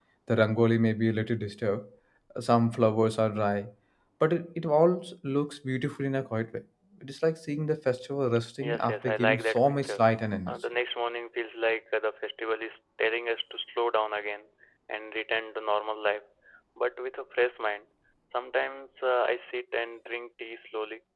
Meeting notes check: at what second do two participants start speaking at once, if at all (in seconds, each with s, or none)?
8.6 s